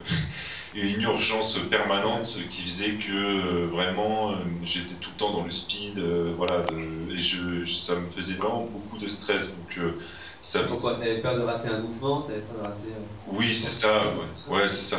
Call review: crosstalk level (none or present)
present